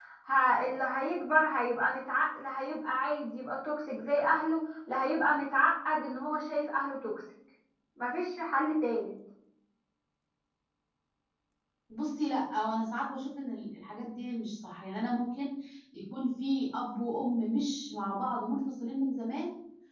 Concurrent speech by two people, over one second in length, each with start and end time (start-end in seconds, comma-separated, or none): none